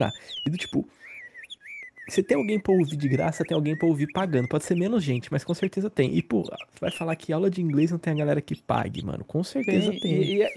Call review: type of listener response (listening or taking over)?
taking over